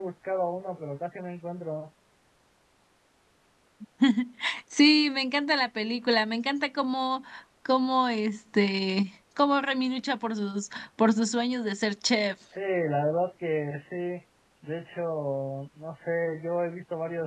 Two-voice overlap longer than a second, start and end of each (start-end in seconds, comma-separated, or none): none